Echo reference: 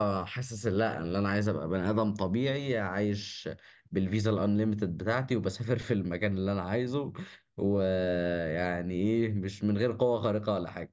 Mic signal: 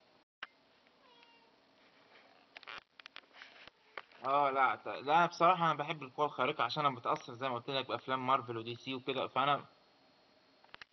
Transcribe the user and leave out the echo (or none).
اه لا ت- لا بصراحة أنا بحب القوة الخارقة عشان أنا متأثر زي ما قلت لك بأفلام مارفل ودي سي وكده فأنا